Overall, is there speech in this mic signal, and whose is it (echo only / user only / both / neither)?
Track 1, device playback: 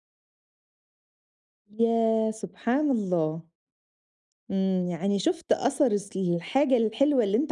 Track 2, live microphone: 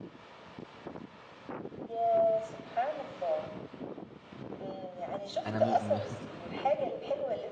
both